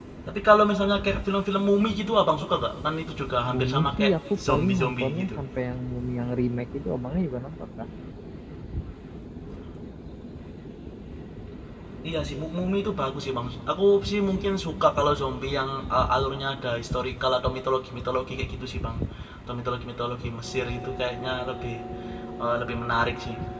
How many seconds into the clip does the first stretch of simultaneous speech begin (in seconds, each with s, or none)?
3.5 s